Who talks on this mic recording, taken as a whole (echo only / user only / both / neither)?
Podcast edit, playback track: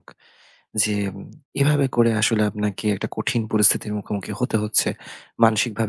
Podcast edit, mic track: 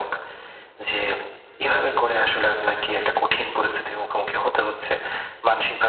echo only